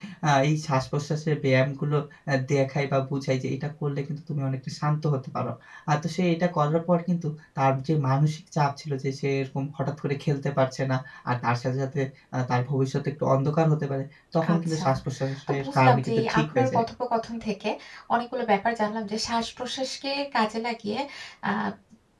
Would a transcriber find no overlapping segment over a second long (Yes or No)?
No